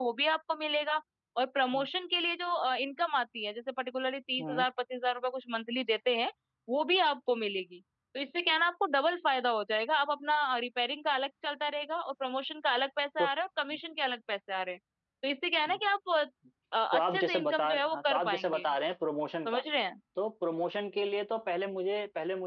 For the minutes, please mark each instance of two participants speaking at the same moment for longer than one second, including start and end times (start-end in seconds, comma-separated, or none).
16.9-18.7